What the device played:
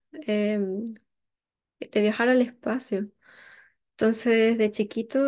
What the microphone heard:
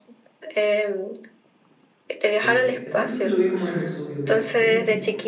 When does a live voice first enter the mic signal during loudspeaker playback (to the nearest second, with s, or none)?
2 s